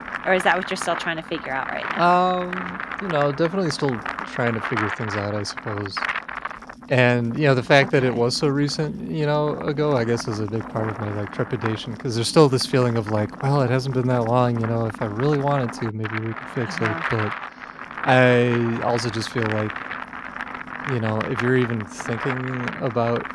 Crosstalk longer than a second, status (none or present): none